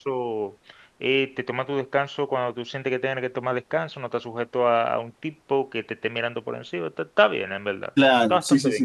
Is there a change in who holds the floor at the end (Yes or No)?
Yes